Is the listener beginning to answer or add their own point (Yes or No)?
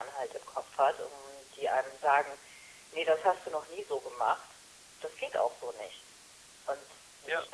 No